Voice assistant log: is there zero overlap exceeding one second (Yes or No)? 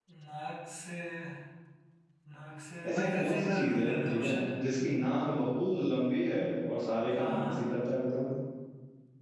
No